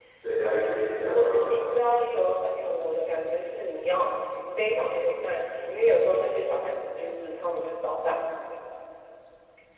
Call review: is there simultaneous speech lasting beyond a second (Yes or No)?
Yes